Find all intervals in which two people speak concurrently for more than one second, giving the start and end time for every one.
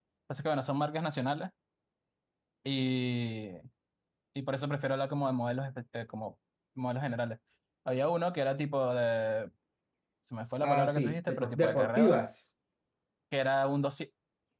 10.6-12.1

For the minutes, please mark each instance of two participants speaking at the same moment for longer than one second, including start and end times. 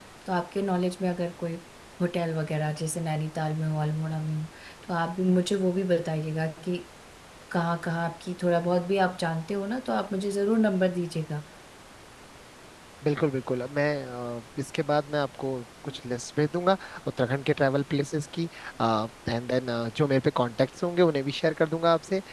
none

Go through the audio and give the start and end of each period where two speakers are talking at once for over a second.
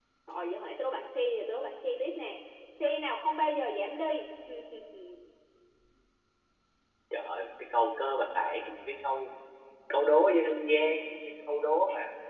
none

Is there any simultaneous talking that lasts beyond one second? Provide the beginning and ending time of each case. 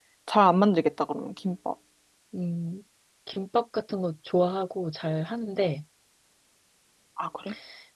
none

